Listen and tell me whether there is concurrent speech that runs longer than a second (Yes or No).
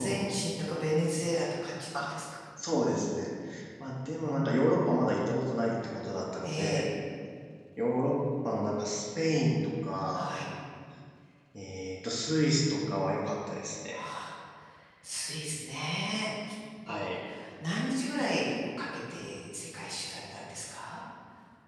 No